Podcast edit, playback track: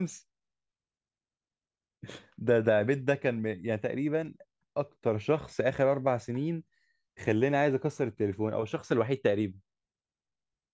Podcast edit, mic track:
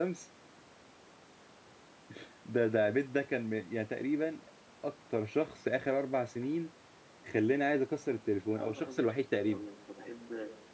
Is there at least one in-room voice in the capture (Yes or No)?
Yes